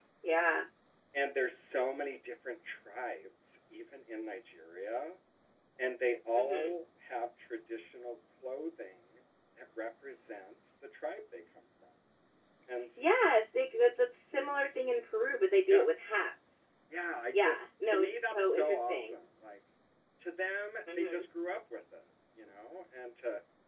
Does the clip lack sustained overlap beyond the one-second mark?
No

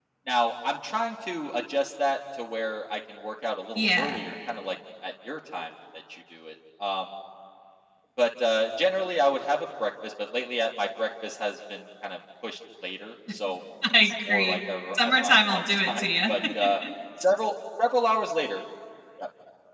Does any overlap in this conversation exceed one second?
Yes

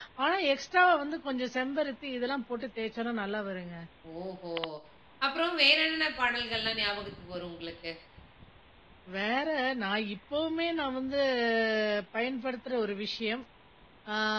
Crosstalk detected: No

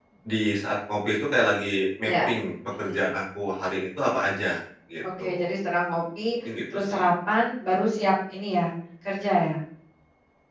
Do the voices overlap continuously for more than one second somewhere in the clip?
No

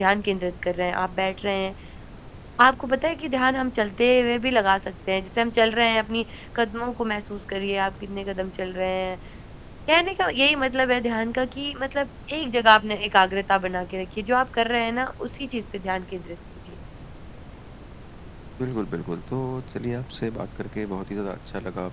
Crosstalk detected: No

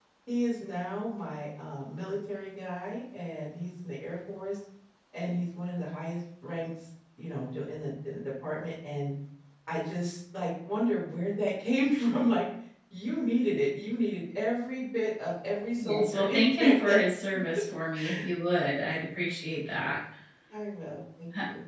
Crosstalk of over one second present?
Yes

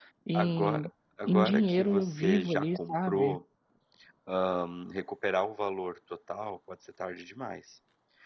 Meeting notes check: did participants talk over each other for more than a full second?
Yes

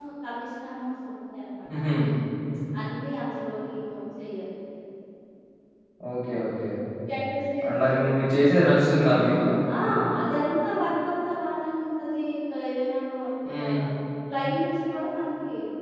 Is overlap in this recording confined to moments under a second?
Yes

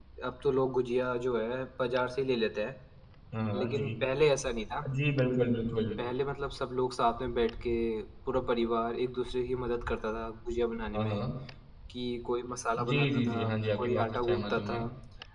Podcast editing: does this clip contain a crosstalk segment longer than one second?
Yes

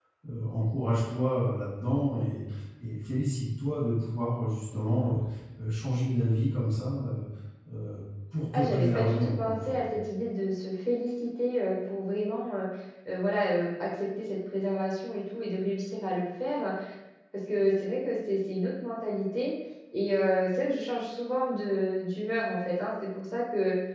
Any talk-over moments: Yes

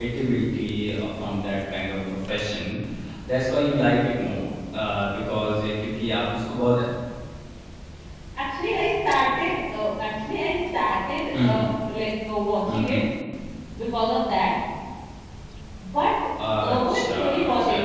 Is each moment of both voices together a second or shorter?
No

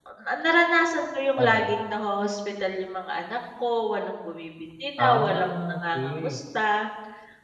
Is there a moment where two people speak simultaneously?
Yes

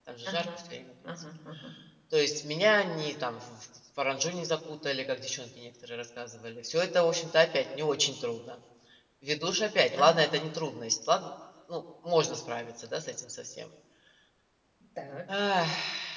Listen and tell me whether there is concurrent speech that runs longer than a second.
No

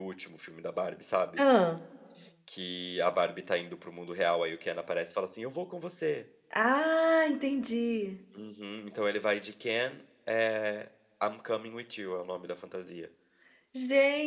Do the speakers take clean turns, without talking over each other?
Yes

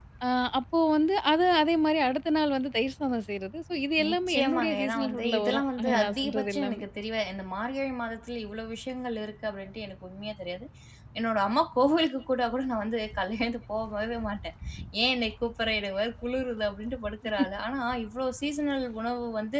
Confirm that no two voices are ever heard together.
No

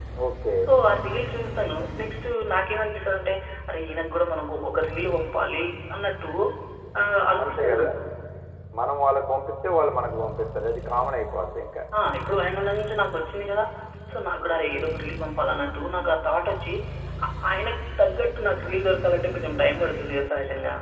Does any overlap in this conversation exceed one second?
No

